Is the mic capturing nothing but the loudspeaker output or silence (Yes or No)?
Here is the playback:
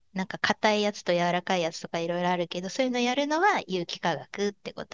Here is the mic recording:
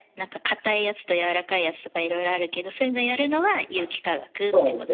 No